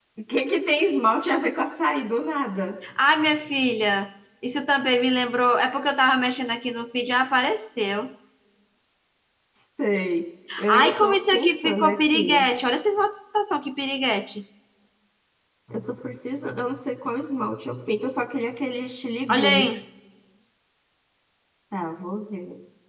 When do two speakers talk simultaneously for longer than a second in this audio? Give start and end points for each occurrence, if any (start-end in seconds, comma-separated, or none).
10.7-12.3